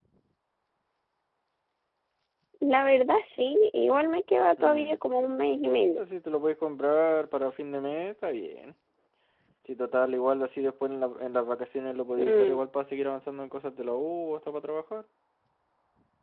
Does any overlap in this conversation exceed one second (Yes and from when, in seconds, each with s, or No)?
No